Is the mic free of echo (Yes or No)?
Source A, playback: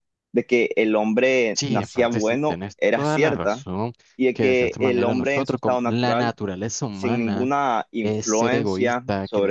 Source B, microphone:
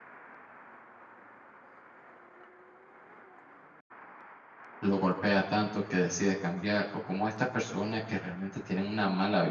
Yes